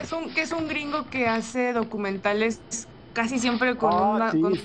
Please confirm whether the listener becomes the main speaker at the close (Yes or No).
Yes